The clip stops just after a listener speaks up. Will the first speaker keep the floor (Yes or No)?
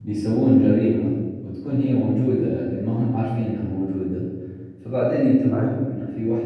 Yes